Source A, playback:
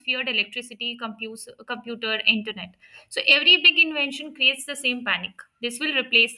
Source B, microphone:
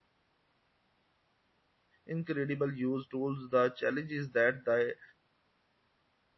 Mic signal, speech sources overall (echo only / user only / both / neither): user only